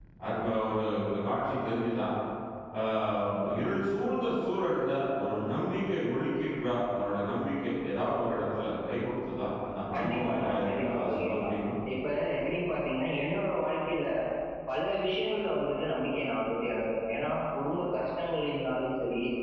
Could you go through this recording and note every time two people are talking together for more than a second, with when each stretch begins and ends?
10.0-11.5

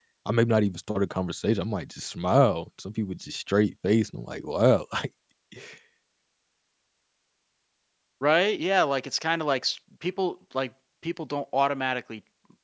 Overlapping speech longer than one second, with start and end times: none

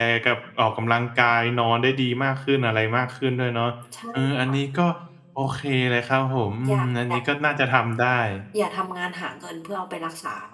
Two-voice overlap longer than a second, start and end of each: none

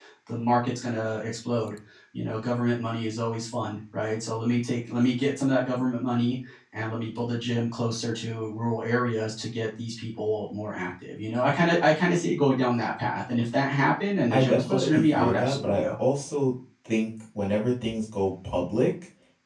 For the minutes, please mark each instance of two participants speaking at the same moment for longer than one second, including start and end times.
14.3-15.9

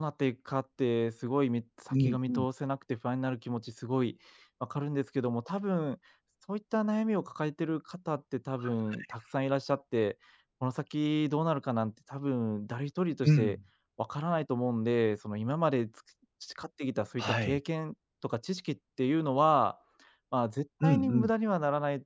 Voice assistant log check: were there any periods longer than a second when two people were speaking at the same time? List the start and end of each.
none

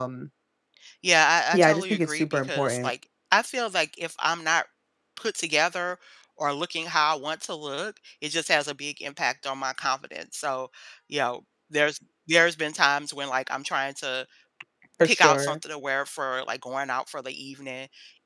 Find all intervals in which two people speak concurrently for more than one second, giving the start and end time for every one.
1.5-2.9

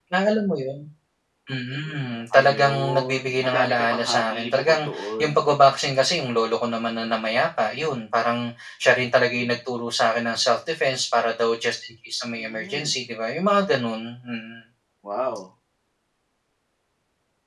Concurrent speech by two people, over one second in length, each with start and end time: 2.4-5.5

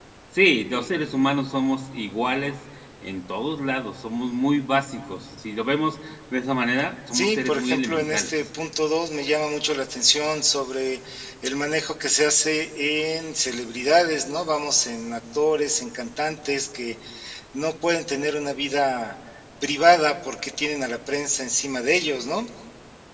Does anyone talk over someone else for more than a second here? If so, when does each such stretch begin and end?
7.1-8.3

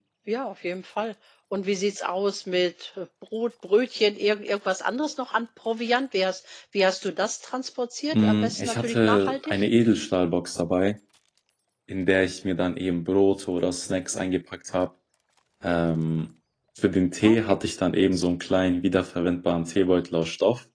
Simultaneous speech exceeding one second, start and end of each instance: 8.1-9.6

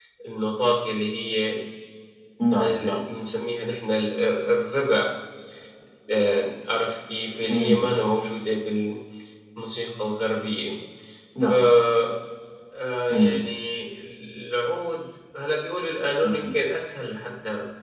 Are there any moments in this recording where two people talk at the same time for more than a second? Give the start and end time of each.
none

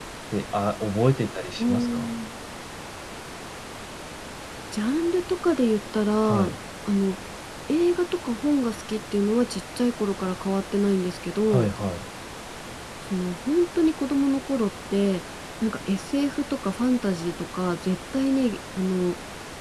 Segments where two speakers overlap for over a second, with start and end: none

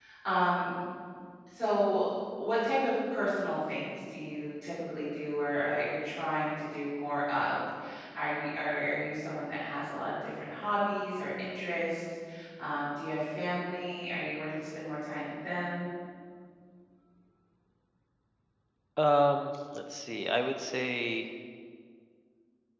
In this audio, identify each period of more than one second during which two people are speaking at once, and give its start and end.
none

